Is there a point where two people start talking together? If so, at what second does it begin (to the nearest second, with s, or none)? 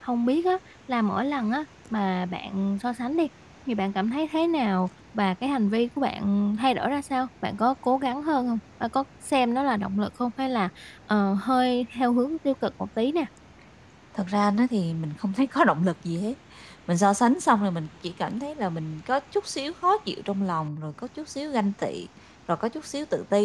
none